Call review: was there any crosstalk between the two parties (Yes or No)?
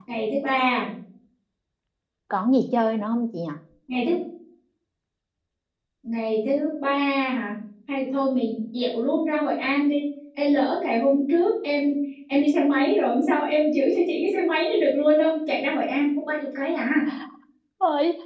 No